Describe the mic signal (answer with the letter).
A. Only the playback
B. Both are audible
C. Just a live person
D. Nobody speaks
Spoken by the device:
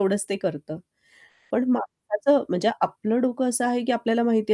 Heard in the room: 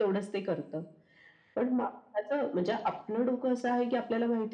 A